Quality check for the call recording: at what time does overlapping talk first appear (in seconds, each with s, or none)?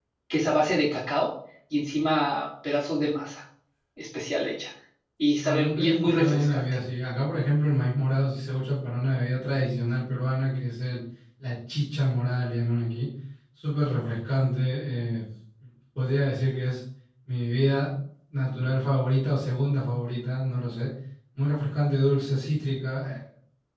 5.4 s